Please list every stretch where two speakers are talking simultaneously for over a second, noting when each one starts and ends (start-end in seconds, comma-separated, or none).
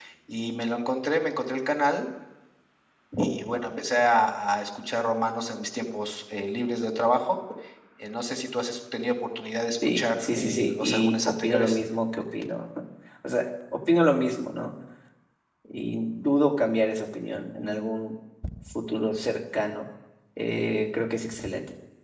9.8-11.8